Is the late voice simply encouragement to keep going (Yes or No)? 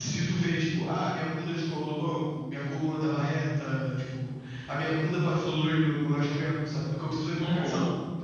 Yes